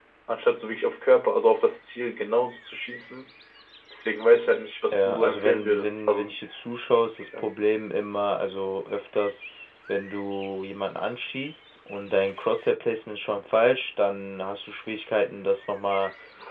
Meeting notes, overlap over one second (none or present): present